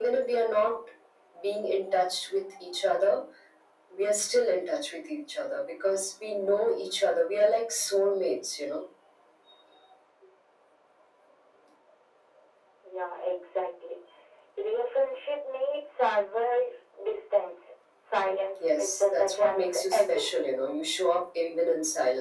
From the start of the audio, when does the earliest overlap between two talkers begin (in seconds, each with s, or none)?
18.6 s